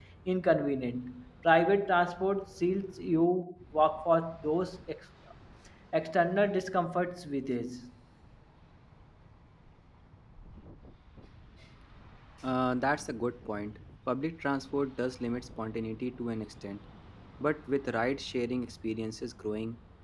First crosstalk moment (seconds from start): none

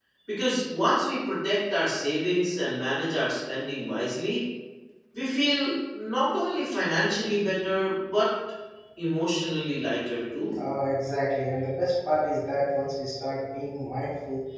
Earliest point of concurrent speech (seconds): none

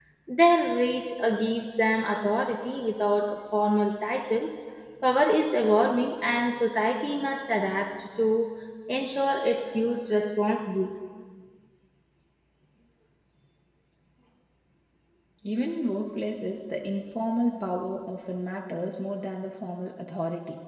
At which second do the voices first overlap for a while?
none

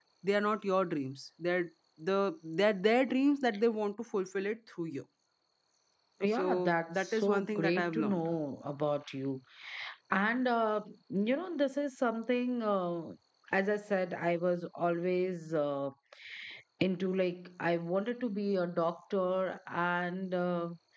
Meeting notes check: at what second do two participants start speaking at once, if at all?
6.3 s

